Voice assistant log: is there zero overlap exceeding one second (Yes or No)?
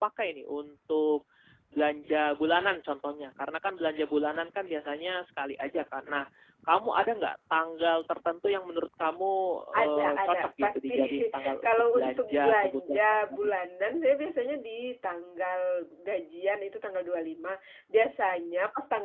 No